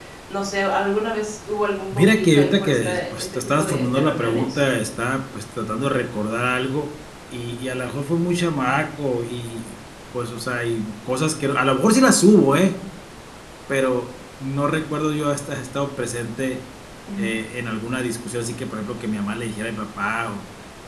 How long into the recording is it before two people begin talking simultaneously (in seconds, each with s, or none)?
1.9 s